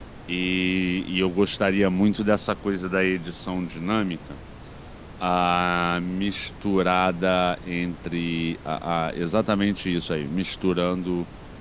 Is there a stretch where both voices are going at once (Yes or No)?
No